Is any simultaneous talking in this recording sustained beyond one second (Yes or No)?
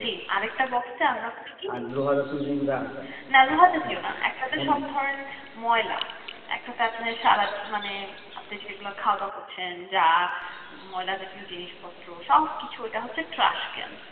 No